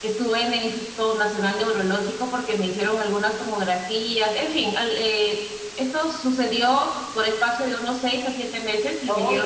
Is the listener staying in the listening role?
No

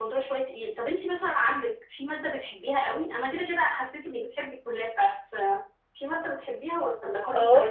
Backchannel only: No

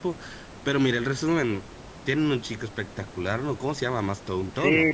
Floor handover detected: Yes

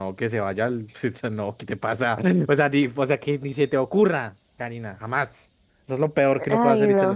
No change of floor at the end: Yes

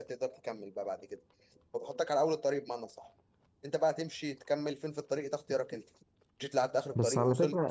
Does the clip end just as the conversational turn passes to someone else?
Yes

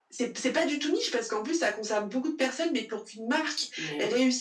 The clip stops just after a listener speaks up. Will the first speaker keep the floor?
Yes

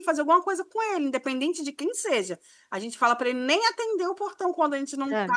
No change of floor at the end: Yes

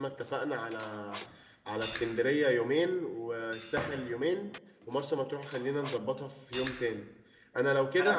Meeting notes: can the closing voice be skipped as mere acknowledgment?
Yes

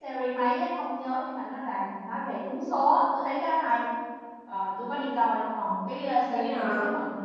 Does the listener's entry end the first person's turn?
No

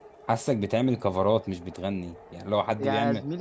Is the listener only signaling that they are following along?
No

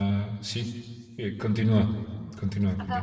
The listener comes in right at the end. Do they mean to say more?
Yes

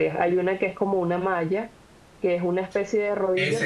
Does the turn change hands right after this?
Yes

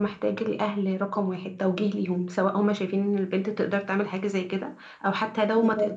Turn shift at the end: No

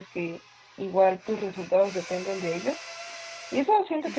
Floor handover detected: No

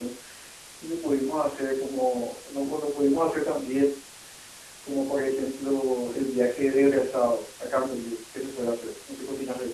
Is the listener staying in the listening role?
No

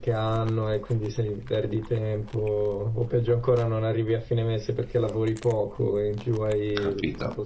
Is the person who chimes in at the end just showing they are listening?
No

